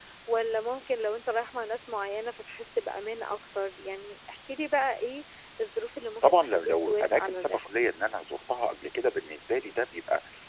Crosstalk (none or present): present